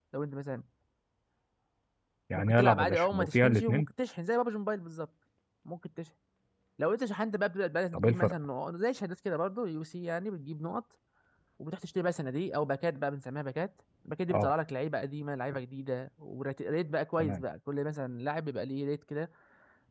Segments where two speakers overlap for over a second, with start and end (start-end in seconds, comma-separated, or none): 2.4-3.9